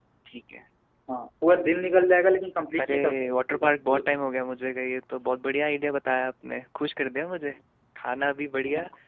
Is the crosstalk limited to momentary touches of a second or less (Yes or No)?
No